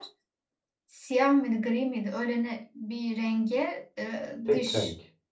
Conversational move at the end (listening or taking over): listening